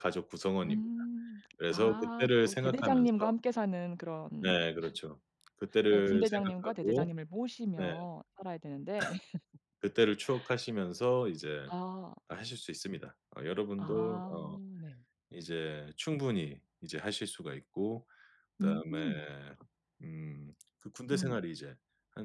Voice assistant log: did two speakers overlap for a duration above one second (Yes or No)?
Yes